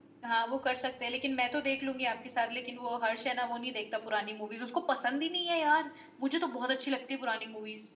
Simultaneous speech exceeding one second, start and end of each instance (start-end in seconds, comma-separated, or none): none